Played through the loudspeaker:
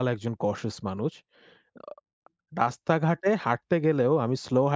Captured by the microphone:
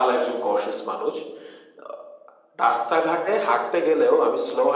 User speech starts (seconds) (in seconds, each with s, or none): none